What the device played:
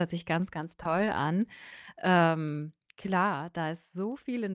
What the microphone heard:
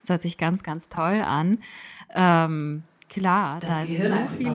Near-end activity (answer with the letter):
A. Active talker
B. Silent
A